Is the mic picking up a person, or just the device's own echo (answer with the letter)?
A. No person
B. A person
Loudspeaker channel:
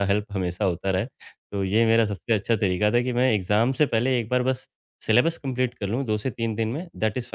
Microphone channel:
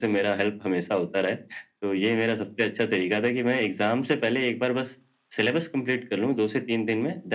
A